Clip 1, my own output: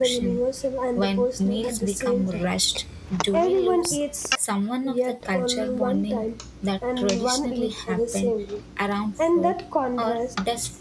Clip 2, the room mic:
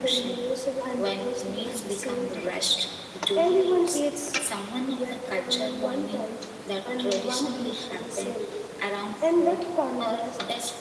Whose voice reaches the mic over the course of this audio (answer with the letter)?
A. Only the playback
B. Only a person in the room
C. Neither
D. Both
A